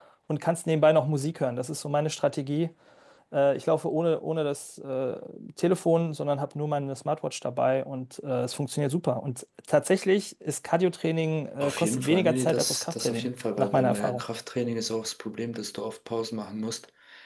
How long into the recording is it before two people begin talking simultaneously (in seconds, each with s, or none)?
11.6 s